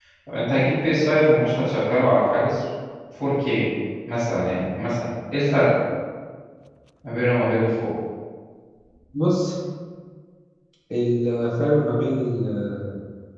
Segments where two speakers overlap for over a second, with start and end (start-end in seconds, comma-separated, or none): none